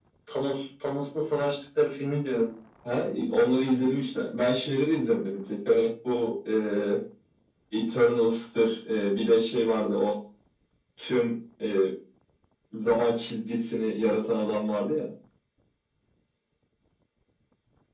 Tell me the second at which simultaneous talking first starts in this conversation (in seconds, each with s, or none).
none